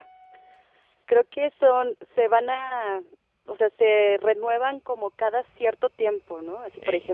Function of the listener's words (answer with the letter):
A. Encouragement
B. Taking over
A